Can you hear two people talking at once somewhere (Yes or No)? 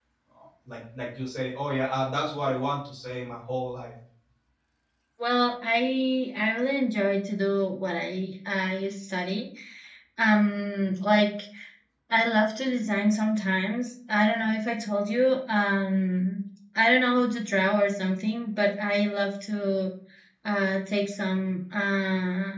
No